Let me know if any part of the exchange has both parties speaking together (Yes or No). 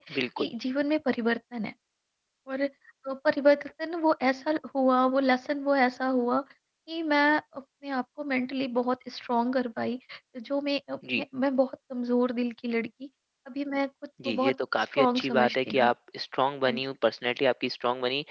Yes